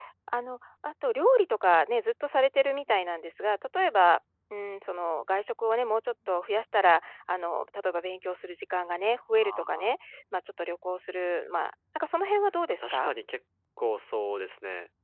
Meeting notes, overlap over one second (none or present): none